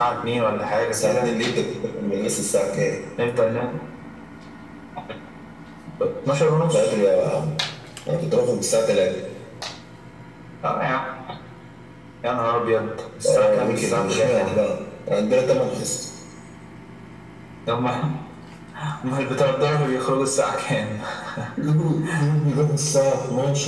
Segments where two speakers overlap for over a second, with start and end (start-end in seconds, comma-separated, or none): 13.3-14.6